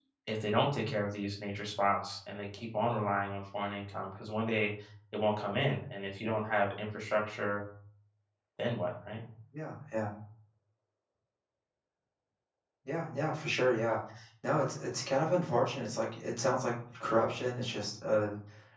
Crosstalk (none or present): none